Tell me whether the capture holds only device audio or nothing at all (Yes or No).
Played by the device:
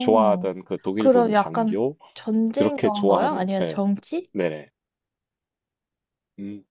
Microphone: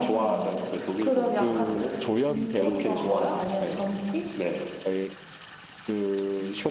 No